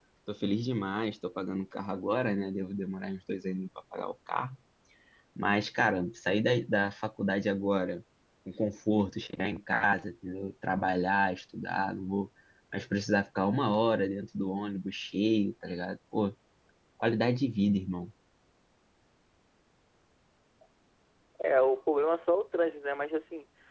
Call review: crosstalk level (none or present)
none